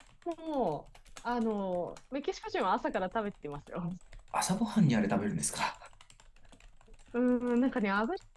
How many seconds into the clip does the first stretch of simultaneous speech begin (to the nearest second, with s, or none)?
none